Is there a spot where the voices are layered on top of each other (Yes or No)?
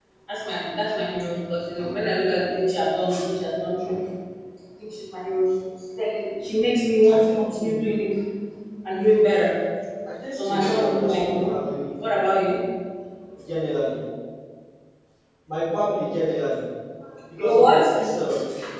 Yes